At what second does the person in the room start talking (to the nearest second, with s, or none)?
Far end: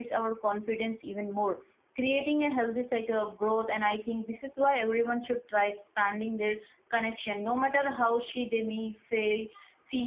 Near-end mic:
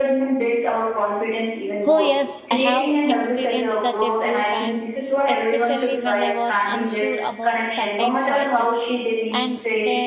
2 s